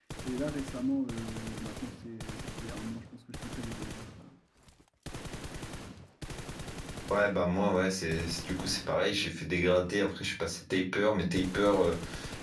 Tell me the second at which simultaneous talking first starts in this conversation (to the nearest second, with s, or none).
none